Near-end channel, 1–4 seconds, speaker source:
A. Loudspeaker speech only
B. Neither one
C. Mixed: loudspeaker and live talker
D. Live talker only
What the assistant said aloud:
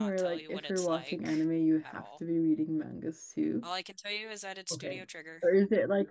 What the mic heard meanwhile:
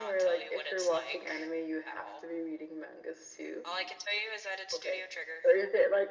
A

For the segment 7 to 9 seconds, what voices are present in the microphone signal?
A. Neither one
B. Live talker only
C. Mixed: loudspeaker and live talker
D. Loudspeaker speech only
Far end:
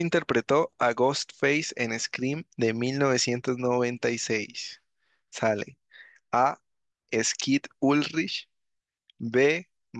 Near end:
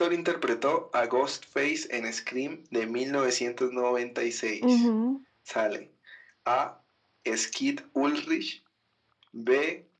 D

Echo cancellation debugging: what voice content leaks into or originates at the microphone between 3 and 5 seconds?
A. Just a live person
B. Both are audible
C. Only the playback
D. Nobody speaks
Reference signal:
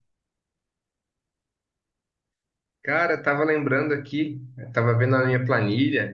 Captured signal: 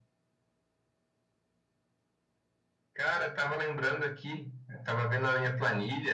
C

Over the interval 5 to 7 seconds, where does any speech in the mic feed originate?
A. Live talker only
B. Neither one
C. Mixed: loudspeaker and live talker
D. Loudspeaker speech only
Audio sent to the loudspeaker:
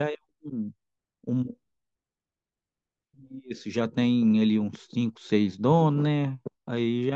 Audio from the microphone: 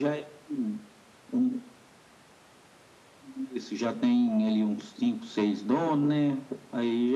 D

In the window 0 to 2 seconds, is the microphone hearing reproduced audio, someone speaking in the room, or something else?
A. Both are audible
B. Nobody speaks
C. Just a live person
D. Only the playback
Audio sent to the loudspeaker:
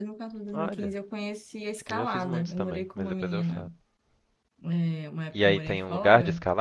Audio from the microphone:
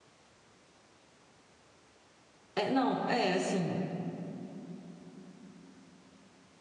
B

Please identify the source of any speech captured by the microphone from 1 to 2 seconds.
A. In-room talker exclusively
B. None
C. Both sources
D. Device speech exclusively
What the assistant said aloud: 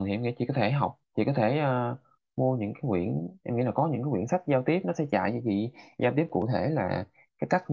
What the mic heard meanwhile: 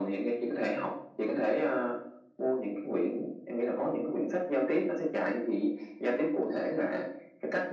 D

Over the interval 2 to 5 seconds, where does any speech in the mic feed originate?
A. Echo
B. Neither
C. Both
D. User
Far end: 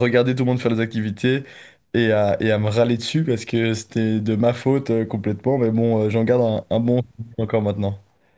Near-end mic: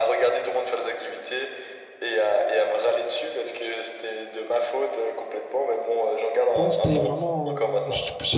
A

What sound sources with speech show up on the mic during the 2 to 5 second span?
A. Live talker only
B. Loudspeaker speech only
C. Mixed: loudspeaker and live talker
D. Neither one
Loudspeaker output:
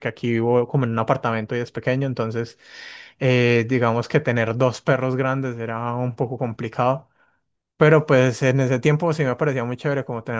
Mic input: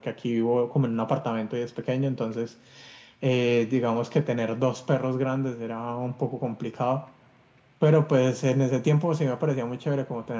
B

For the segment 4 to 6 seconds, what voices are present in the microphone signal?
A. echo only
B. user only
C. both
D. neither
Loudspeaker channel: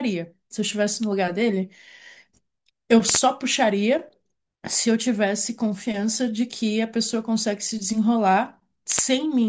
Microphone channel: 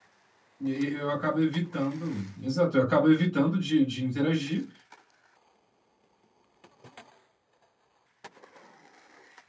B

